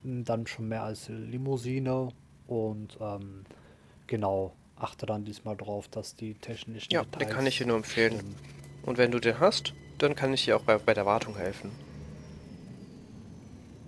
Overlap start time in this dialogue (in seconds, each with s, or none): 6.9 s